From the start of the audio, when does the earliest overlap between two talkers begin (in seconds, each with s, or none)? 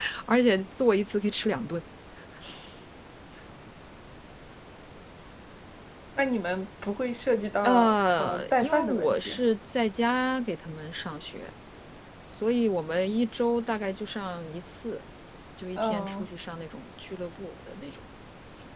7.6 s